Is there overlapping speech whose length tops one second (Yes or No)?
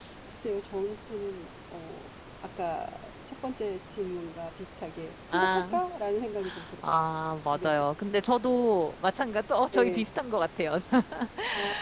No